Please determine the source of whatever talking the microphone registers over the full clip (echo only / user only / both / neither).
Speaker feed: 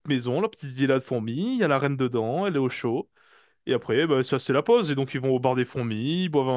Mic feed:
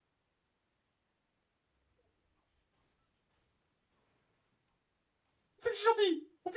user only